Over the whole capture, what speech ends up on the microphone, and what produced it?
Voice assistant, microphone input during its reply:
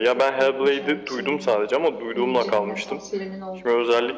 both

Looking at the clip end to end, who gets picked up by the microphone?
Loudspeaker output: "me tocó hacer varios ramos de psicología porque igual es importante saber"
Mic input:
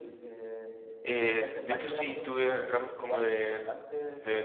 both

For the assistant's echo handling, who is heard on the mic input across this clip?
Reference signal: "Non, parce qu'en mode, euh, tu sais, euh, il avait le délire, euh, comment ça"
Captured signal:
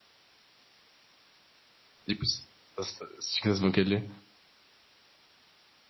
user only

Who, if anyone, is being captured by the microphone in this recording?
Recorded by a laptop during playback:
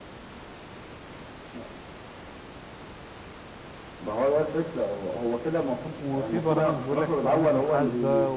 both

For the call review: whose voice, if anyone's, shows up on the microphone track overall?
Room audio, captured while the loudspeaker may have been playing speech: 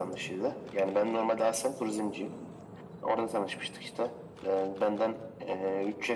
echo only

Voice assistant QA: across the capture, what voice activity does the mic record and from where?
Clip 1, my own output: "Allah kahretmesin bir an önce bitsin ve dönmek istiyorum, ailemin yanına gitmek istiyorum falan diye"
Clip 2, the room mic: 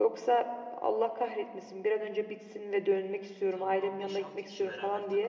both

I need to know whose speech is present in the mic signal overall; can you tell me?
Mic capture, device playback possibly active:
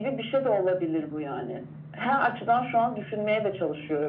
echo only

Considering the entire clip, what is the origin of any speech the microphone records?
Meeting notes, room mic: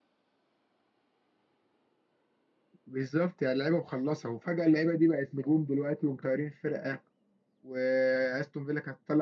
user only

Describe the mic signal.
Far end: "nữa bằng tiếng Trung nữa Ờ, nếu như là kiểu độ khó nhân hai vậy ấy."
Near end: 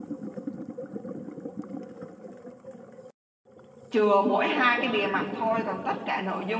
user only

